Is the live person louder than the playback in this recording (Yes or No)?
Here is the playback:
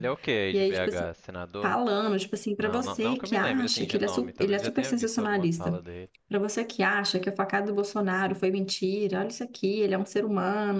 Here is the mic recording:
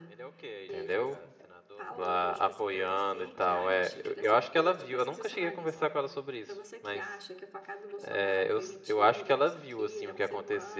Yes